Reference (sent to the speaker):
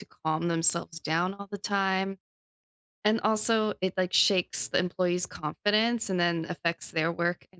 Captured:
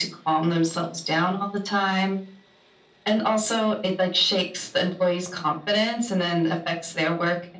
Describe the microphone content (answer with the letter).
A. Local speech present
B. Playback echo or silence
B